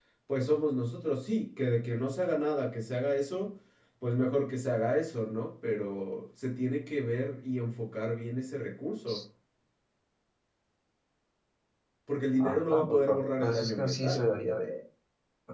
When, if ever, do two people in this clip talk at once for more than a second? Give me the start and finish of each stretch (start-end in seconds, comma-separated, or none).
12.4-14.3